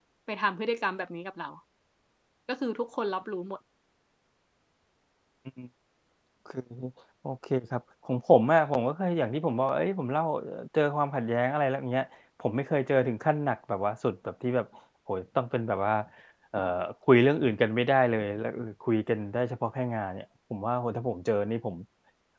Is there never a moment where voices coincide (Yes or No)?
Yes